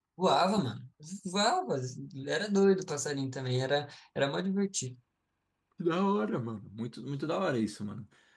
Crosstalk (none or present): none